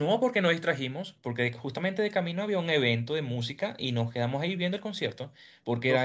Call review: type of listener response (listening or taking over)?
listening